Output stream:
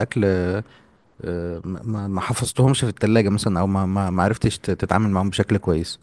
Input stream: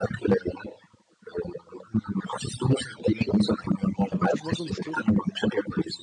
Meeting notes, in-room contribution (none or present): present